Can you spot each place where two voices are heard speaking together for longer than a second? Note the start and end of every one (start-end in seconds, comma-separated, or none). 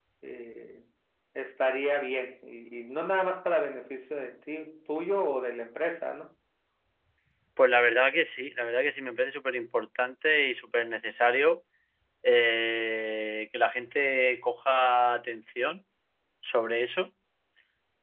none